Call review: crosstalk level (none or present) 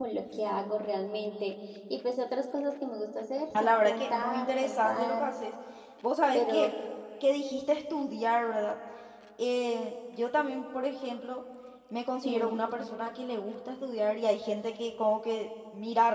present